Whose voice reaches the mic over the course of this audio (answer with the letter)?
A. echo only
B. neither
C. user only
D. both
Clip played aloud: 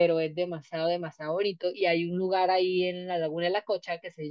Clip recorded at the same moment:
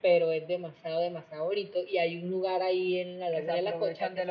D